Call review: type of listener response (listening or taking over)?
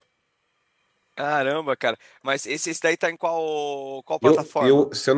taking over